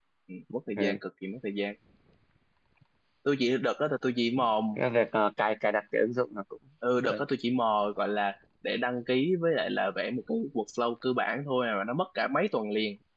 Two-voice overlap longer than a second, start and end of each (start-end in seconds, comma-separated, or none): none